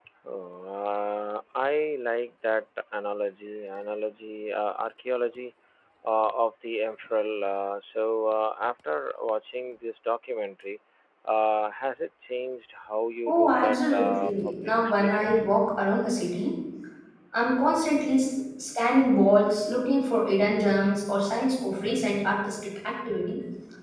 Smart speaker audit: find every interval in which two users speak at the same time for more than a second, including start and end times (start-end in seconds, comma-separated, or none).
13.3-15.4